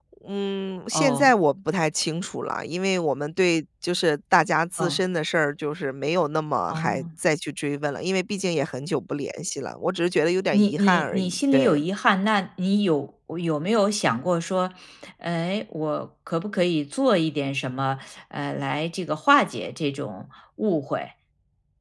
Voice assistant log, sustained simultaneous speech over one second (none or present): present